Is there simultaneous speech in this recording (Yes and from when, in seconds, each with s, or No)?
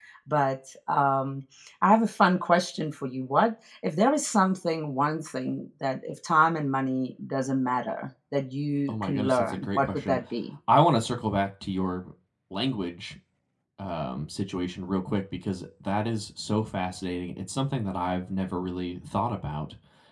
Yes, from 8.9 s